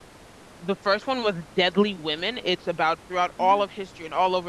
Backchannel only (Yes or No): Yes